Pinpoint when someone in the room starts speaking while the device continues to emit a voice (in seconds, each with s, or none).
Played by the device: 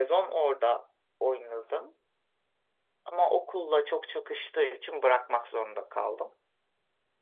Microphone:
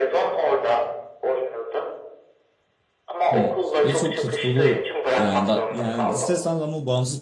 3.3 s